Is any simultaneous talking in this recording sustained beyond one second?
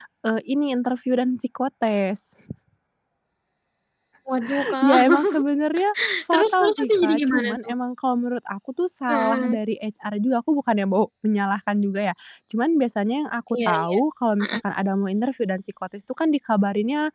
Yes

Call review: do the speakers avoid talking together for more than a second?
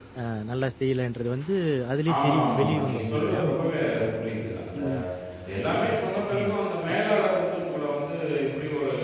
No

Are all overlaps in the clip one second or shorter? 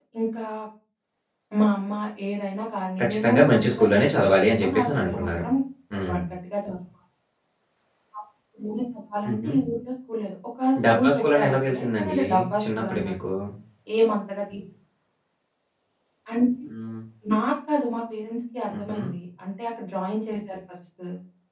No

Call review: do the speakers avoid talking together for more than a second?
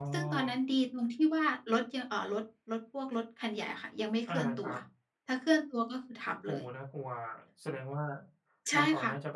Yes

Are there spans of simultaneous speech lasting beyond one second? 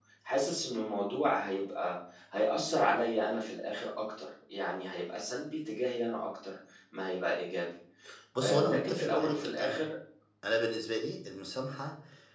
Yes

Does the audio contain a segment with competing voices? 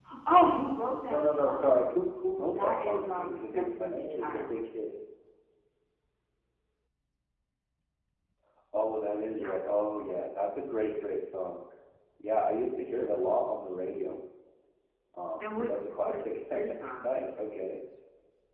Yes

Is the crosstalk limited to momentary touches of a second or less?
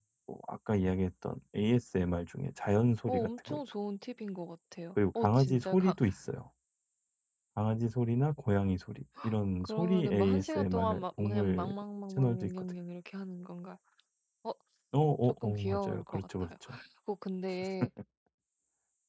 No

